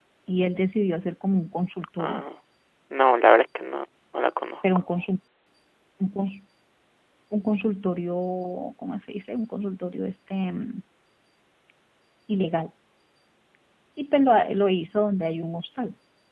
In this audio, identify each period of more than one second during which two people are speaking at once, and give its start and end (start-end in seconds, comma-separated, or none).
none